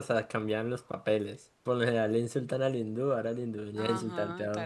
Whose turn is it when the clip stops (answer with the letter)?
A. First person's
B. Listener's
B